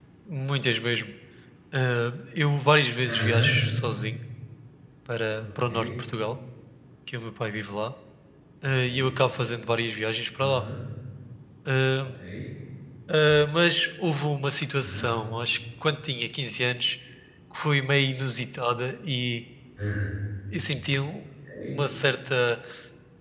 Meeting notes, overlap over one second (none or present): none